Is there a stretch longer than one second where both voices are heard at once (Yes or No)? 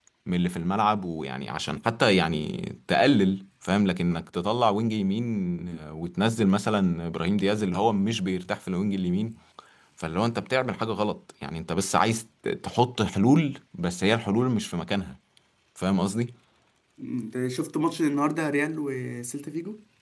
No